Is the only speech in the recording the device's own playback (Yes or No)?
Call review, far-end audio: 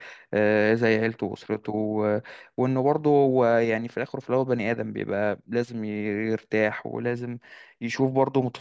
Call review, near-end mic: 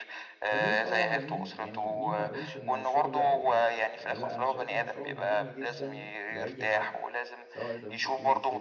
No